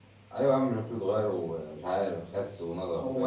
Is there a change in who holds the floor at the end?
Yes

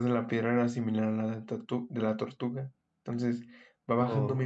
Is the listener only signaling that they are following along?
Yes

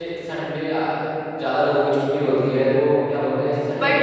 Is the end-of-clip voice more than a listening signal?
Yes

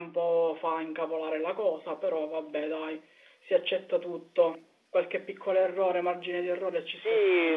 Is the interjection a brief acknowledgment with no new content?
No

